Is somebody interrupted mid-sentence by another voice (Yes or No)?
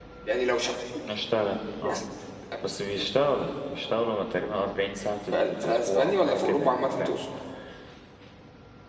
Yes